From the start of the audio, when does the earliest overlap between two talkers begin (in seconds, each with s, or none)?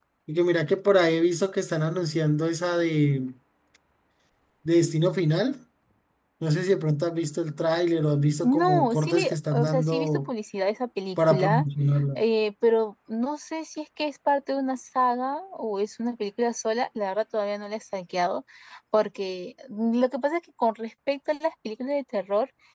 8.4 s